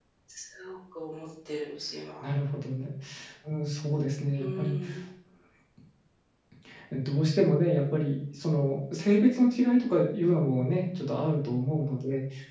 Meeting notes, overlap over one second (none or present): none